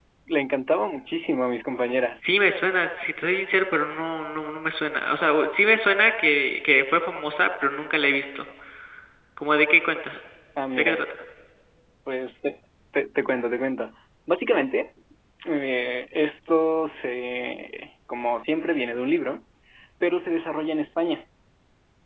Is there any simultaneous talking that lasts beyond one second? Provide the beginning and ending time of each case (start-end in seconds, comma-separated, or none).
none